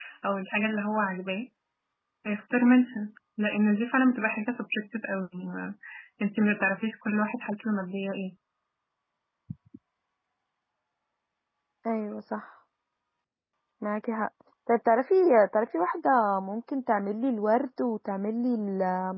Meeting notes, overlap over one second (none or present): none